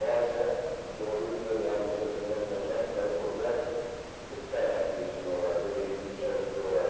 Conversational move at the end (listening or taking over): listening